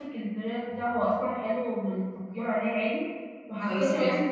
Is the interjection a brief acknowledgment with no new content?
Yes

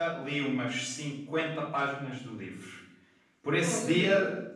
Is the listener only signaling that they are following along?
Yes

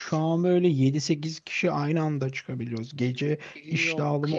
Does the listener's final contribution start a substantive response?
No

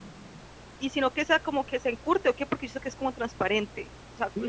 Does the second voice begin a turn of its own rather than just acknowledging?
Yes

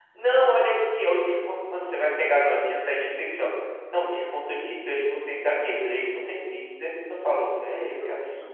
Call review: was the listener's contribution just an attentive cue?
No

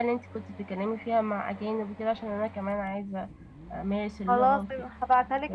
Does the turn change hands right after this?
Yes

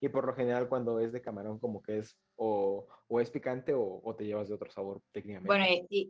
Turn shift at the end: Yes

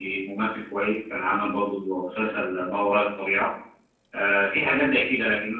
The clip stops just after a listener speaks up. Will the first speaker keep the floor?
Yes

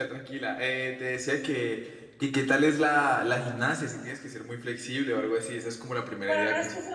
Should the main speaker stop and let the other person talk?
Yes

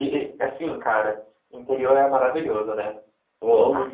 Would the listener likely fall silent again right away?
Yes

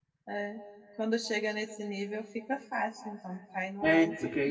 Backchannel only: No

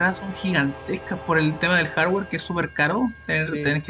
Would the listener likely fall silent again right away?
Yes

